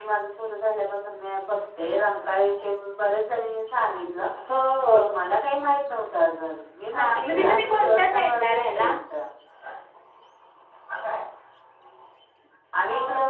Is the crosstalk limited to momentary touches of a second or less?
No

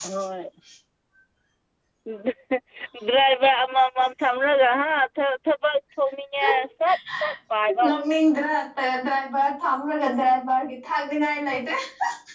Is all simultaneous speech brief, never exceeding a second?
Yes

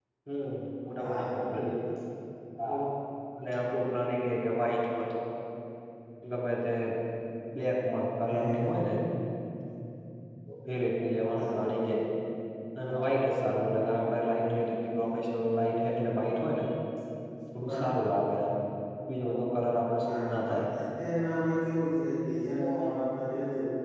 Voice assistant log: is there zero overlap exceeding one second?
Yes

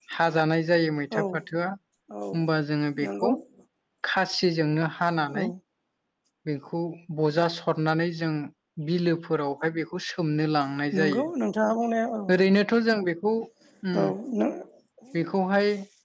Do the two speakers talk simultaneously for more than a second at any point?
No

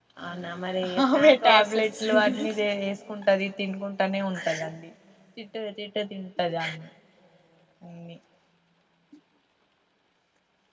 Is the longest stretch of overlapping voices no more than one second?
No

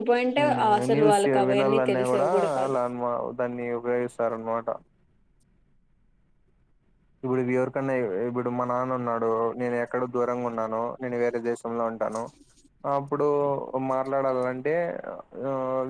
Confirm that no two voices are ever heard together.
No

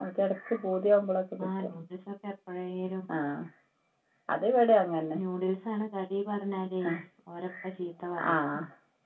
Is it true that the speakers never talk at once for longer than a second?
Yes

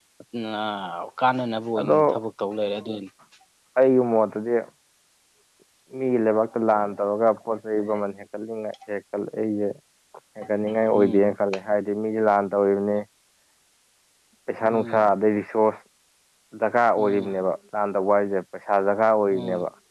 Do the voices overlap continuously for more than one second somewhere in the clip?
No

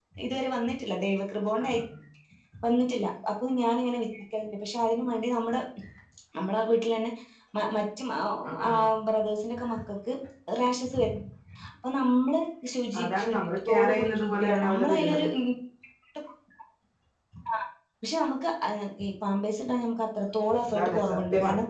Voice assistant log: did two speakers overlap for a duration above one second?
Yes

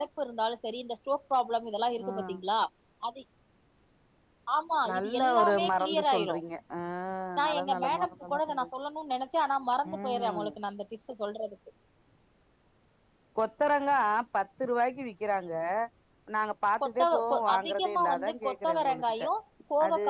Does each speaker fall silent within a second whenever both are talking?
No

